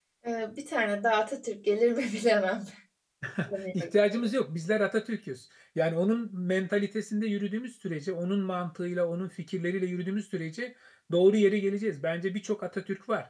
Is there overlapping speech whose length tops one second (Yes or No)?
No